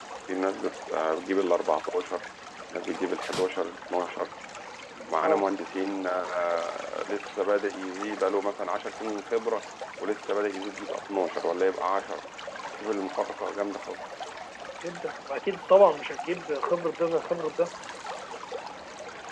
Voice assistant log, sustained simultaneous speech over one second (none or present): none